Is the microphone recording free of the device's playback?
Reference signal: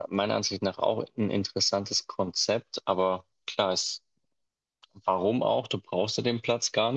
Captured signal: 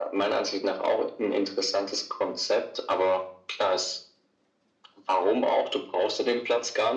No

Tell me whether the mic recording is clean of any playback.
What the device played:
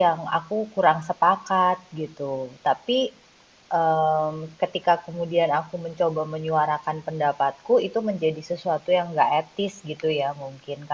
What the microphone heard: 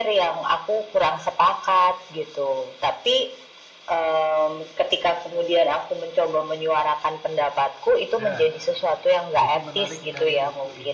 No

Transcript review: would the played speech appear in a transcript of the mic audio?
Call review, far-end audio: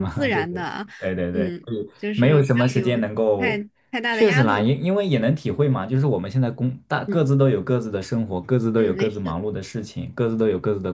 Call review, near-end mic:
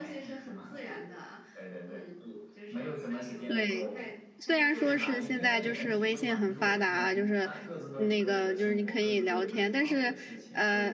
Yes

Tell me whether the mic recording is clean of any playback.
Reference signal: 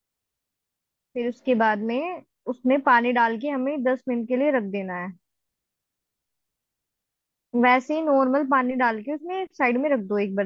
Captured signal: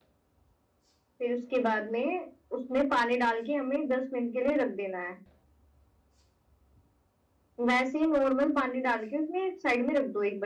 No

